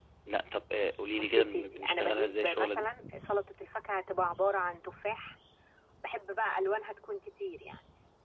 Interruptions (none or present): present